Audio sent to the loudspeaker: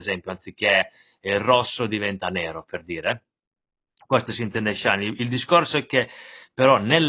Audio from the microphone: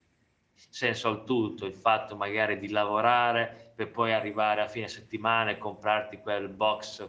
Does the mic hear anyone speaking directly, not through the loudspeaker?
Yes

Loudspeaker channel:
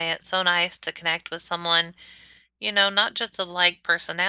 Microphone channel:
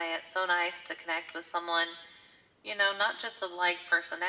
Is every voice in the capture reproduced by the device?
Yes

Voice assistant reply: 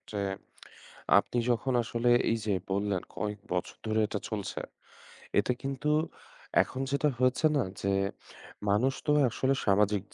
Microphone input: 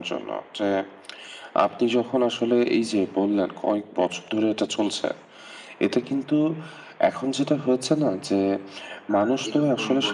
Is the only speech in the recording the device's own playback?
No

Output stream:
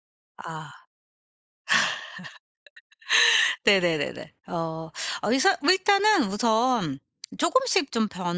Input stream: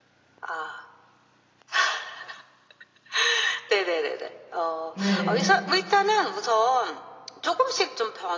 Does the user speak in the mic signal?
Yes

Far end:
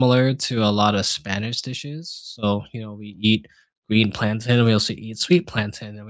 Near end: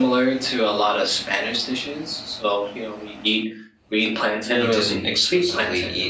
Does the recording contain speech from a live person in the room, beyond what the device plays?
Yes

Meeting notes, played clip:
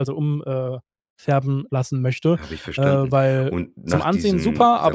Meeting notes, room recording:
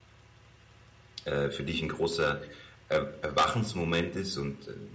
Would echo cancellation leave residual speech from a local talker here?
Yes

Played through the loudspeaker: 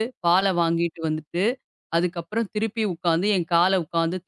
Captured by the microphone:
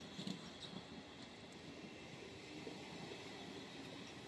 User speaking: No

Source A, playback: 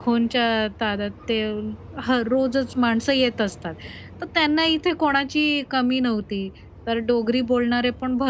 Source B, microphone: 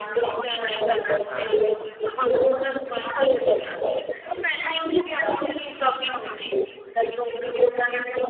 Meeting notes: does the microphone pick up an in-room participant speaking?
Yes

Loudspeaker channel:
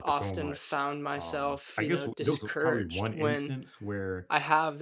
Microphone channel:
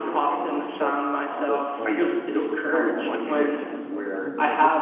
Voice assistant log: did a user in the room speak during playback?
Yes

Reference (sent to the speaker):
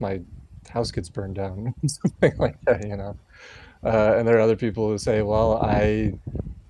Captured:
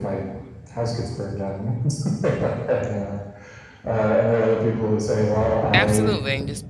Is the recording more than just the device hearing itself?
Yes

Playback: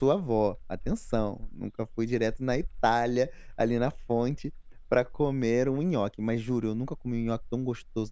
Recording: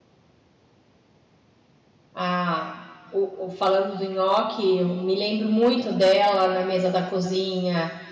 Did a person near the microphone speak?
Yes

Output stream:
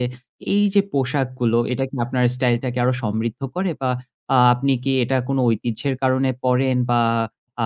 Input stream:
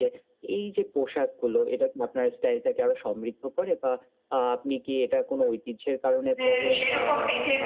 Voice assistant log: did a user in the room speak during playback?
Yes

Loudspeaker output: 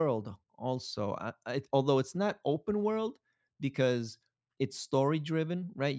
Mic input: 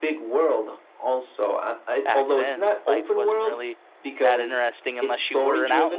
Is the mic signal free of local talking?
No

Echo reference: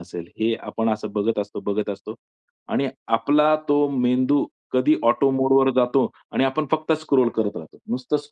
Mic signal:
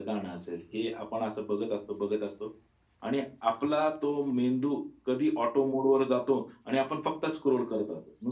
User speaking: No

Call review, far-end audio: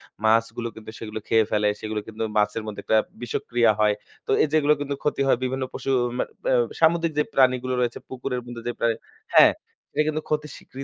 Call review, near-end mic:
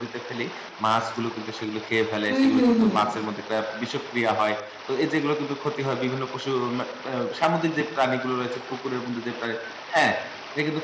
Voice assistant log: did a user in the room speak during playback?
Yes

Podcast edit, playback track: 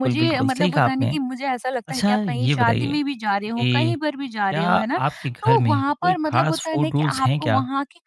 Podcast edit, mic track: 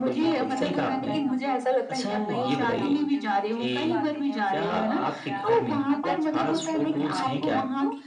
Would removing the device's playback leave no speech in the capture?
No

